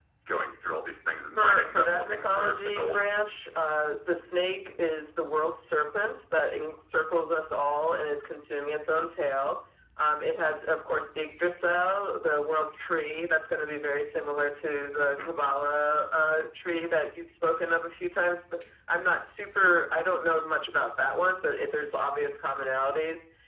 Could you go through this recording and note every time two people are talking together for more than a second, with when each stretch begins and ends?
1.4-3.0

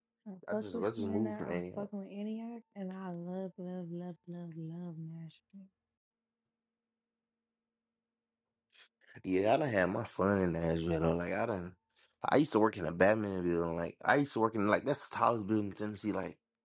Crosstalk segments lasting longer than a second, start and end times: 0.5-1.8

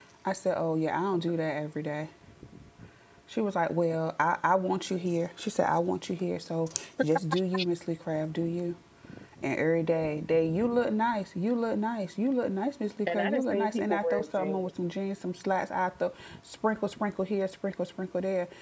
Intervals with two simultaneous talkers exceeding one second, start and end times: 13.1-14.7

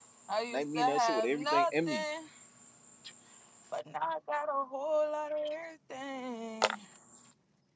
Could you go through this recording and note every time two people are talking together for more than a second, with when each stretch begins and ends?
0.5-2.0

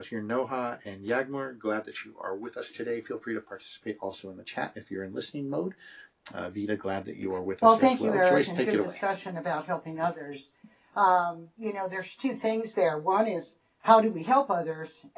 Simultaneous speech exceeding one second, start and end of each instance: 7.6-8.9

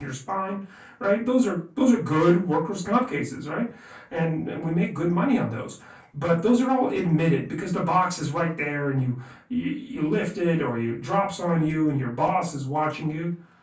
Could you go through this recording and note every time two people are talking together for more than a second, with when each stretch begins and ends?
none

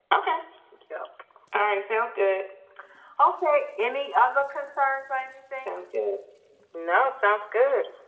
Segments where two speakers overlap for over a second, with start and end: none

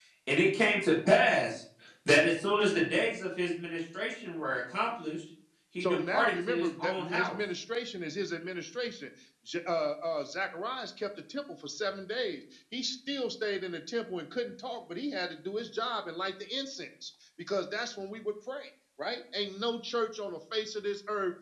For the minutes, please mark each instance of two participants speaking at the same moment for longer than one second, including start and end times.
5.8-7.4

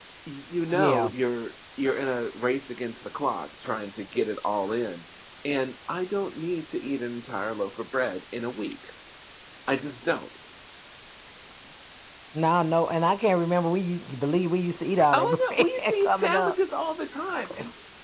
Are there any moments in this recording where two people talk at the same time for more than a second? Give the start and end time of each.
15.1-16.6

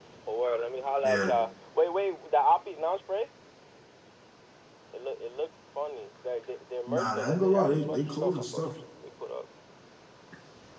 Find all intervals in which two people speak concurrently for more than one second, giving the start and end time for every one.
6.9-8.6

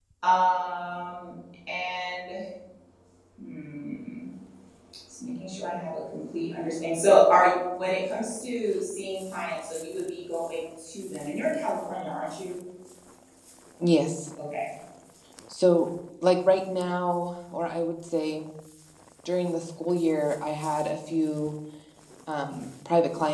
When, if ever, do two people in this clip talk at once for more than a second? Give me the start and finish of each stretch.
none

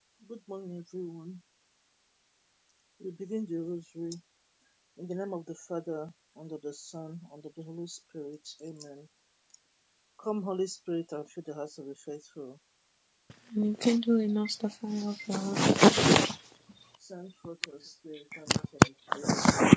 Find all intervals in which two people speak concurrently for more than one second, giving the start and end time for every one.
none

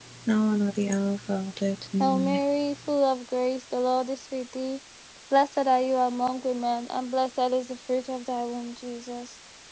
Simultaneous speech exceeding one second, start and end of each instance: none

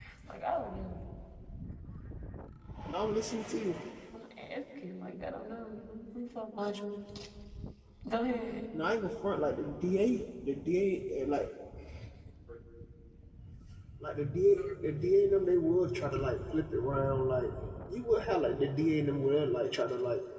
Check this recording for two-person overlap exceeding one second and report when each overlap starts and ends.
none

